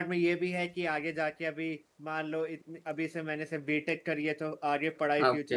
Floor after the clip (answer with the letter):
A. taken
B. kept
B